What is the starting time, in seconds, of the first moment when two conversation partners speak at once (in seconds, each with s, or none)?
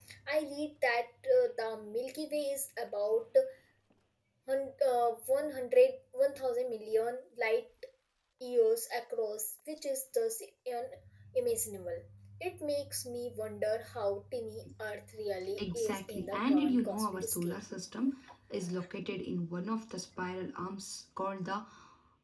15.6 s